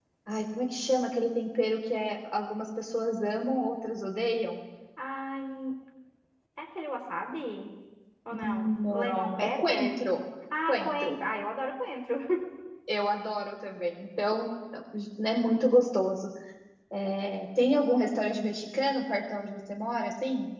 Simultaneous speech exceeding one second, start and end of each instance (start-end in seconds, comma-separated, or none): 8.4-10.0